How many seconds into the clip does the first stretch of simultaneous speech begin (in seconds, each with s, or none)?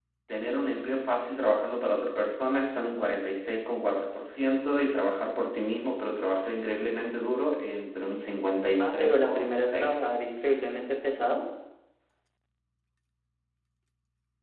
8.8 s